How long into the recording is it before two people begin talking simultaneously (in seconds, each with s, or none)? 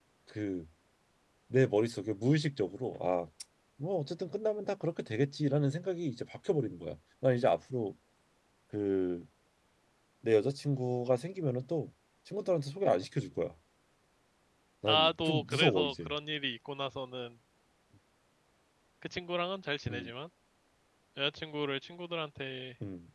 14.9 s